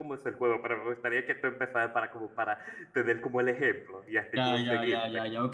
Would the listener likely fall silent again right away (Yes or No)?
No